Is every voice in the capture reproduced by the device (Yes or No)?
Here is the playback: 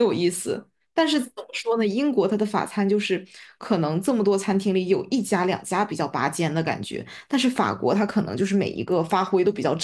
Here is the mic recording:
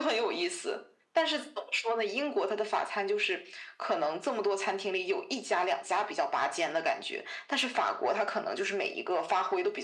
Yes